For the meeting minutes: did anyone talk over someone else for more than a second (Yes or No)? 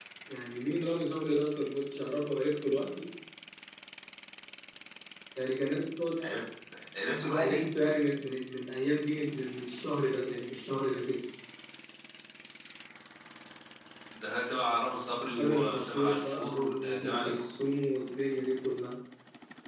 Yes